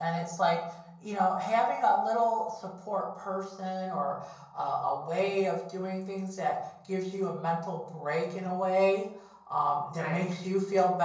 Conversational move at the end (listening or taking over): listening